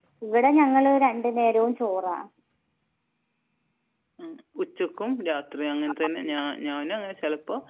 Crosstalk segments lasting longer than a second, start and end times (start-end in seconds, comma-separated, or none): none